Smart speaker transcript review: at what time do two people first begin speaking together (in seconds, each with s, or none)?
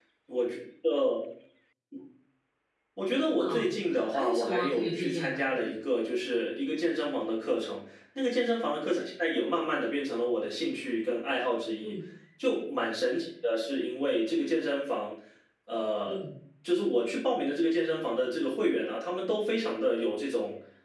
3.4 s